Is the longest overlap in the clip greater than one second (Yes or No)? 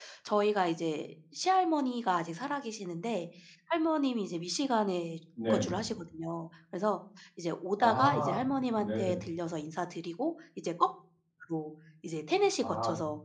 Yes